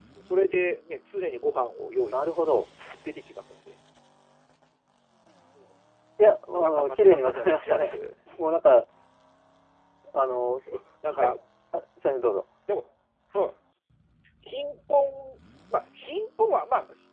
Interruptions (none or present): present